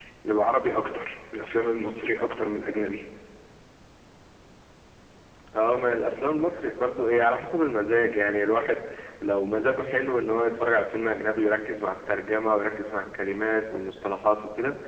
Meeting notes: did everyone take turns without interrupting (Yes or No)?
Yes